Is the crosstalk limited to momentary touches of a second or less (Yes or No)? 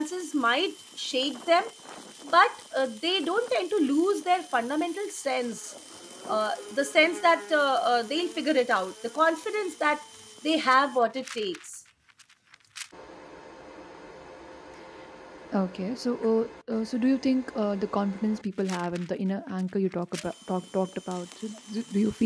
Yes